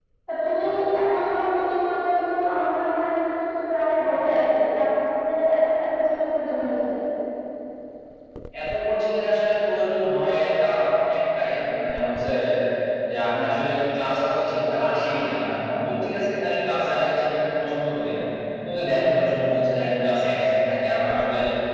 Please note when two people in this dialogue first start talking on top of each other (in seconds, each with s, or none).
none